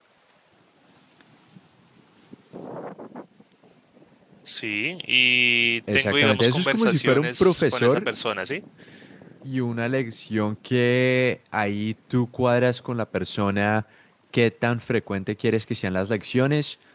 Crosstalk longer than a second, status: present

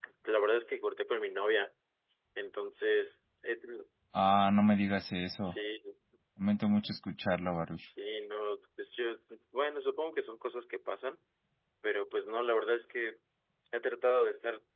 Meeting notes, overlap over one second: none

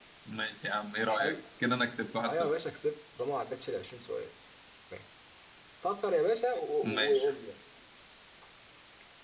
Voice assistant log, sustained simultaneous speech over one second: none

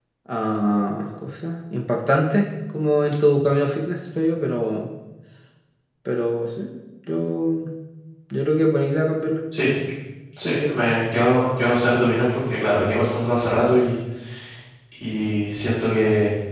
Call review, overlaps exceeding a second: none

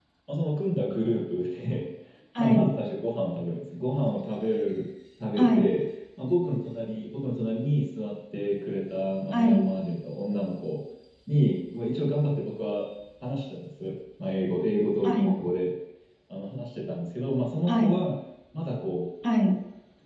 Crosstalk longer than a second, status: none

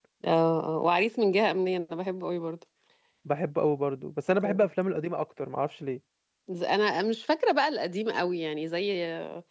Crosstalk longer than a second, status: none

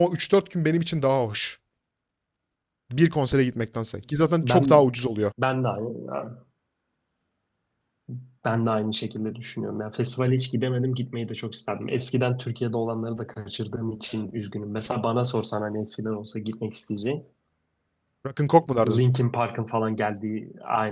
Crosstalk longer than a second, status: none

